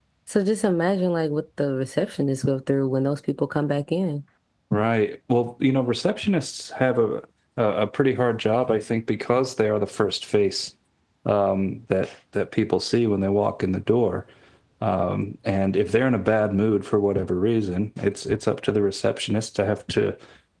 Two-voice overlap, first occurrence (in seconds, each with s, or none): none